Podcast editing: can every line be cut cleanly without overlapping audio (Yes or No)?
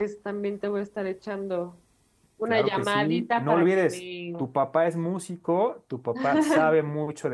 No